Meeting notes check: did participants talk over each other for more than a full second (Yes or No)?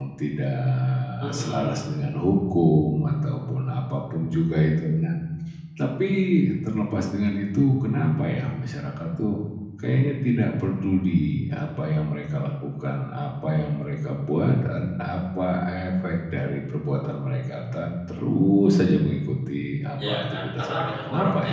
Yes